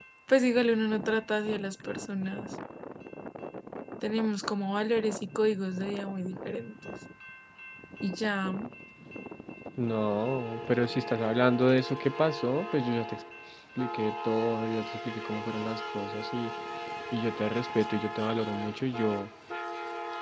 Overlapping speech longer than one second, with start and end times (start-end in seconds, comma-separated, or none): none